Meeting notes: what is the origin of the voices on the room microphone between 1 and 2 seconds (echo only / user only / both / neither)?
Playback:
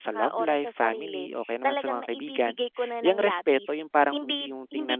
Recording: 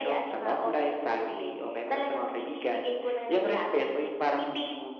echo only